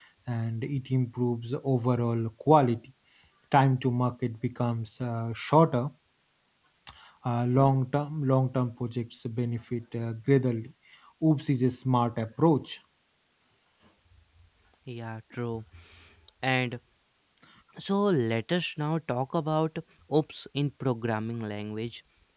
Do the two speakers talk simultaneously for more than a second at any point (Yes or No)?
No